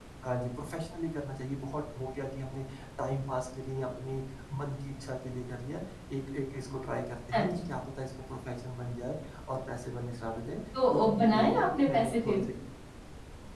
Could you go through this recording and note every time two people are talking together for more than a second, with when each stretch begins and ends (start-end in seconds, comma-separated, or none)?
10.9-12.4